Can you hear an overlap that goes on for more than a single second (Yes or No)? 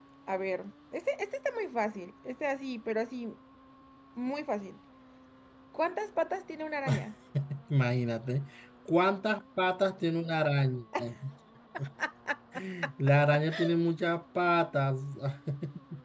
No